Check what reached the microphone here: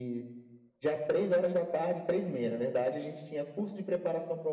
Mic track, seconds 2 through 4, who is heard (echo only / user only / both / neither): echo only